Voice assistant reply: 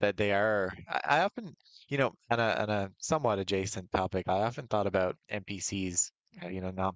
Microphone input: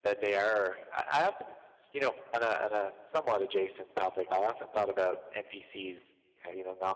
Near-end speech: none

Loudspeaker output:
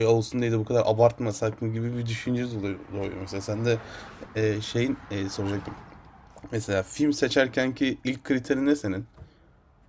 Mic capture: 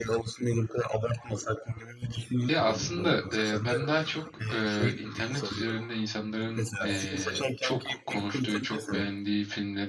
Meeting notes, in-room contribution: present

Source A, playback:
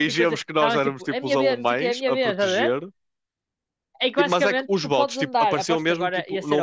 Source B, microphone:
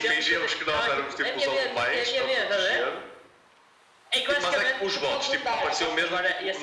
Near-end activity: none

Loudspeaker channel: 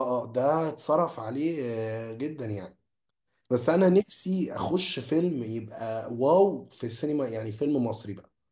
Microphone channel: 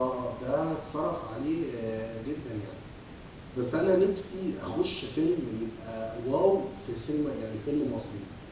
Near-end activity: none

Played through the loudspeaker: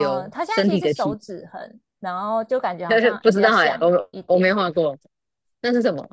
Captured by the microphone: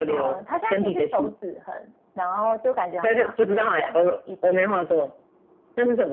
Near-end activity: none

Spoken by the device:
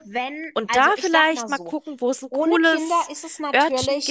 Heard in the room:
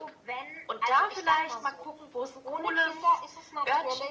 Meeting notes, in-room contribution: none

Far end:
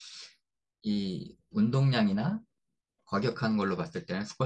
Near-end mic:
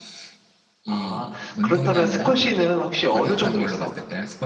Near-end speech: present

